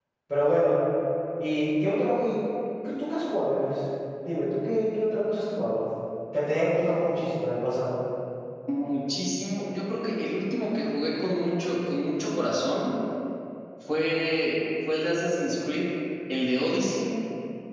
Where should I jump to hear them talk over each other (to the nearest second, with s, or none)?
none